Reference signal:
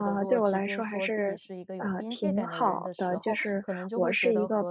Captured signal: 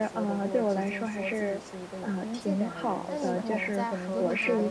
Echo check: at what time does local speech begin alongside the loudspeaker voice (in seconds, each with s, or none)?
3.1 s